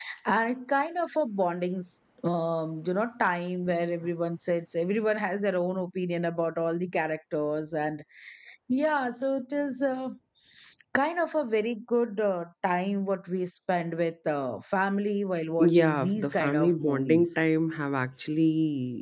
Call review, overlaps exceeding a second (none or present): present